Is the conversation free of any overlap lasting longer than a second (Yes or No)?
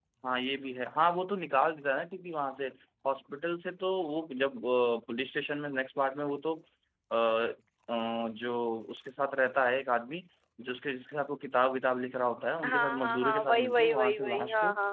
No